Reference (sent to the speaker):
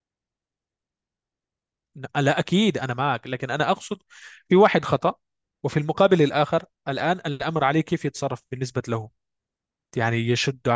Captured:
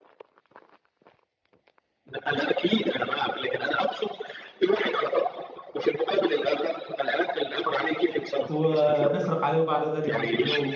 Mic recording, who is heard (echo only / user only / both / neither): both